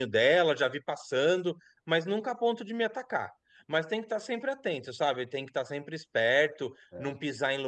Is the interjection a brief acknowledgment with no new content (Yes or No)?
Yes